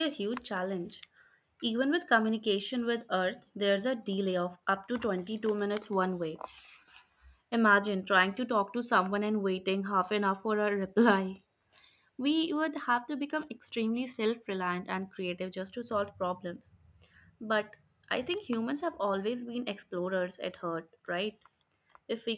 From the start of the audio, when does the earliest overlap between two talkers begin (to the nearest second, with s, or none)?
none